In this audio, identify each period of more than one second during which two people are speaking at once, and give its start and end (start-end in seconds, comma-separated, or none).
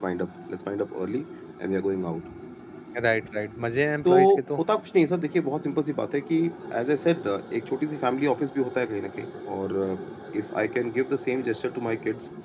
none